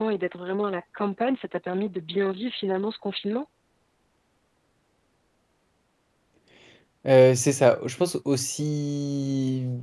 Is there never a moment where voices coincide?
Yes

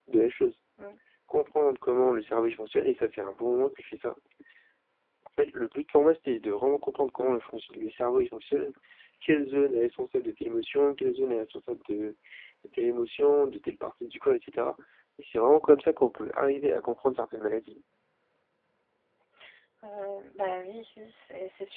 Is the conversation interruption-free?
Yes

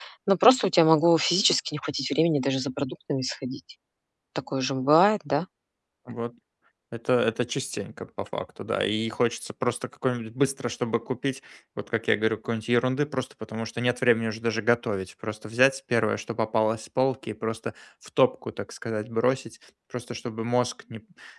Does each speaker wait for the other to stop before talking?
Yes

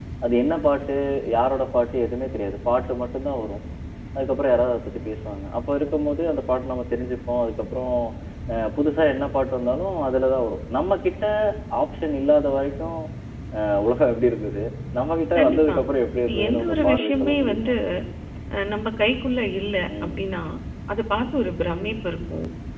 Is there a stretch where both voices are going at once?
Yes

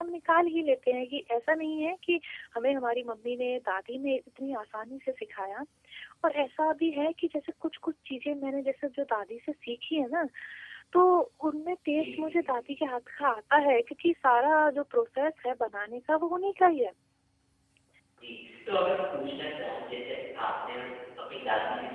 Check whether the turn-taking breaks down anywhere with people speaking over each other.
No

